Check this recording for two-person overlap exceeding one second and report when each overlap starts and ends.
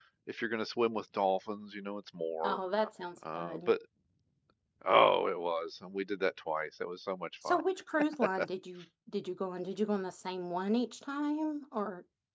none

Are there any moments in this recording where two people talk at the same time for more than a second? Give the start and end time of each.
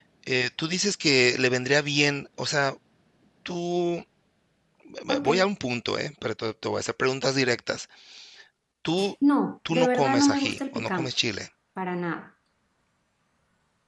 9.7-11.1

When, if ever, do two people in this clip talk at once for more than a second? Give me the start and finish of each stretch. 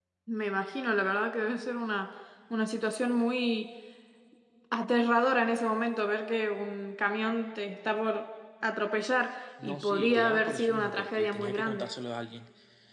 9.6-11.9

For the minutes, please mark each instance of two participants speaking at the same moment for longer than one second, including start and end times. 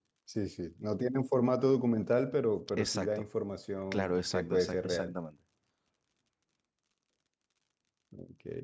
3.9-5.1

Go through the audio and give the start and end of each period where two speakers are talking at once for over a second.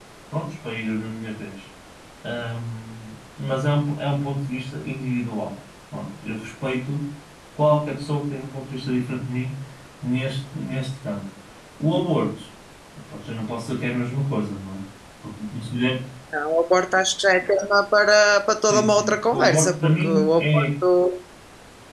18.7-20.6

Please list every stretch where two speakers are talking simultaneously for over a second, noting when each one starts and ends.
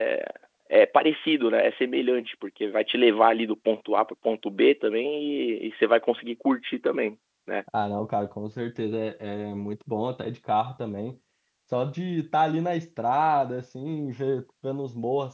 none

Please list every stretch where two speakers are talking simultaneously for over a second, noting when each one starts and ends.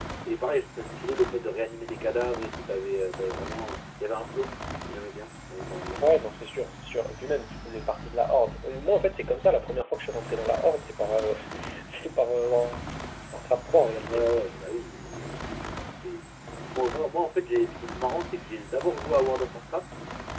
none

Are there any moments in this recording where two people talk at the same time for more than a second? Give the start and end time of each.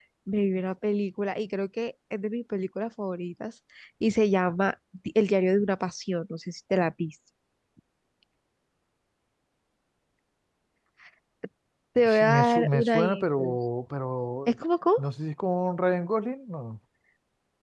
12.0-13.5

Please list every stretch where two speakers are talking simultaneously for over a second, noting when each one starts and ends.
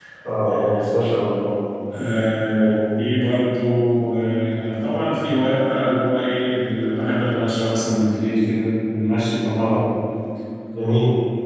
none

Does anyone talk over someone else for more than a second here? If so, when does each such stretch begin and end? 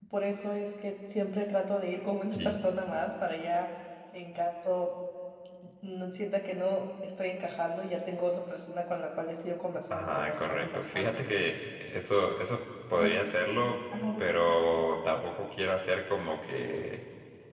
9.9-11.2

